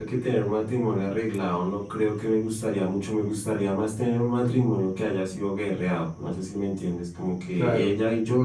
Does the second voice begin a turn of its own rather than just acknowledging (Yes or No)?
No